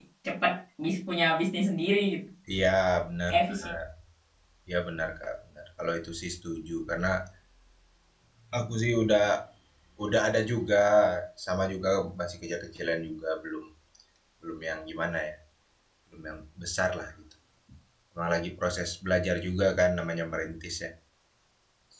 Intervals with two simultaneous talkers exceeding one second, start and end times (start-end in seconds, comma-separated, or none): none